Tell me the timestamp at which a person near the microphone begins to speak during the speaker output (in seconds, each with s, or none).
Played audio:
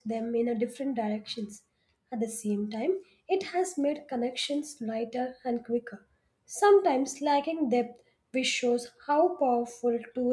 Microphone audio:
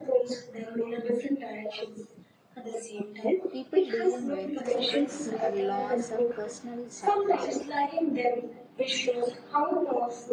3.5 s